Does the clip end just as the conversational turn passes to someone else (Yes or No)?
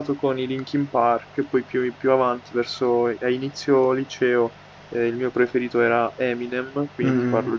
Yes